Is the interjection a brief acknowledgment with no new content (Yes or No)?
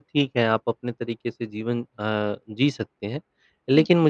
Yes